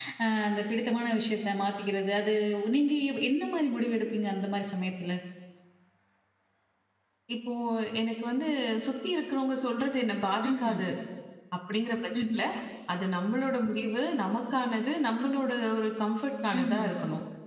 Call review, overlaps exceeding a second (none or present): none